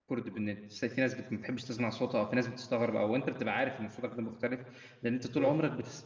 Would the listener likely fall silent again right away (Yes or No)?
Yes